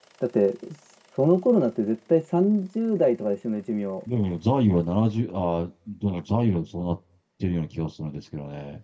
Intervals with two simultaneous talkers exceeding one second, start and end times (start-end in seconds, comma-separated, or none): none